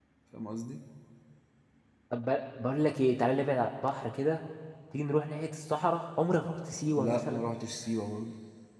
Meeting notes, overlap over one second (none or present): none